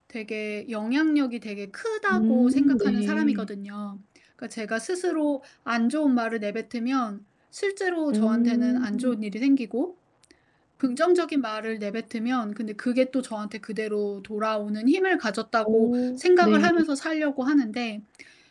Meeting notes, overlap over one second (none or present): present